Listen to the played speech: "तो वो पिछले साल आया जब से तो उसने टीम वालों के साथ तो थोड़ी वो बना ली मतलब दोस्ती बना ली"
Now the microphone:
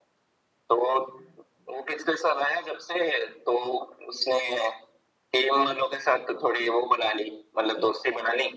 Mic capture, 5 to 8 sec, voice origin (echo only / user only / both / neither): echo only